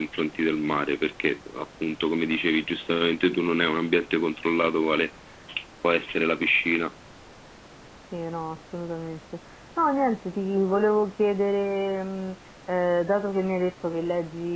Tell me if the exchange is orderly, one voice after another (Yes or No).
Yes